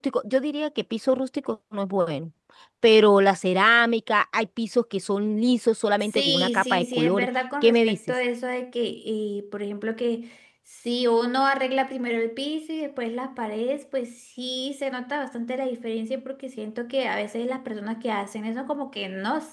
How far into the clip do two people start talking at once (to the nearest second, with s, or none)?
6 s